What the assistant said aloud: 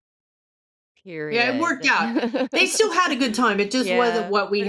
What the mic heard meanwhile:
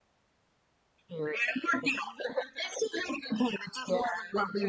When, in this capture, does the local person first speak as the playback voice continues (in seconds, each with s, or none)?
none